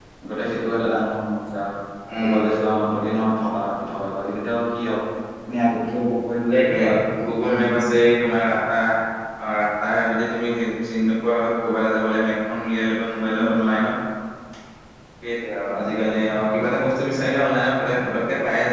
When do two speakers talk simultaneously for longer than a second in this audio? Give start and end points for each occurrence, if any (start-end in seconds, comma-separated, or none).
none